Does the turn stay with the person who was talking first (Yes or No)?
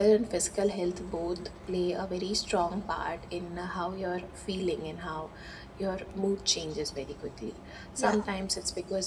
Yes